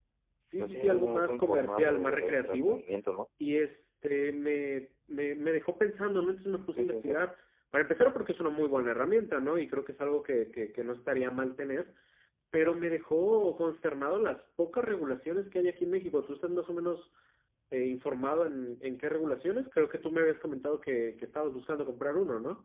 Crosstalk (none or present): present